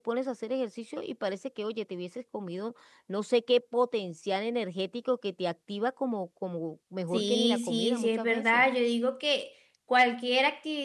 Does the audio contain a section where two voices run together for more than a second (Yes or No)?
Yes